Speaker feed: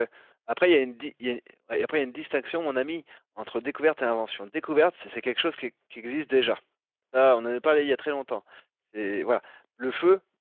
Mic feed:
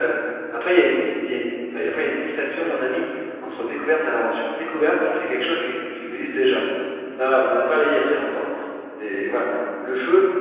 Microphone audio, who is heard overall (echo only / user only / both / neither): echo only